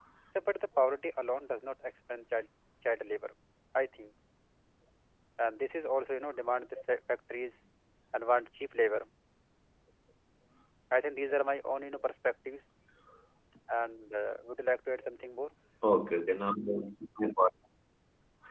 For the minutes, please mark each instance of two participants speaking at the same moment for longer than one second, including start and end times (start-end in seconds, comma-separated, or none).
none